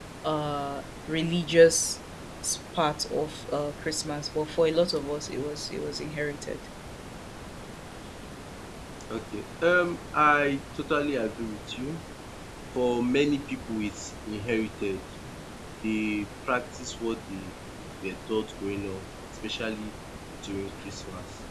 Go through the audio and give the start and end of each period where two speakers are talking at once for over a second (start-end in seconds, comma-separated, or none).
none